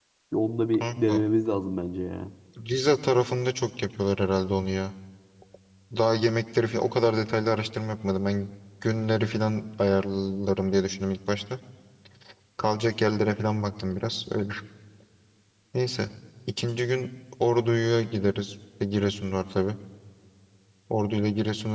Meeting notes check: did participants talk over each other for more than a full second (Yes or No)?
No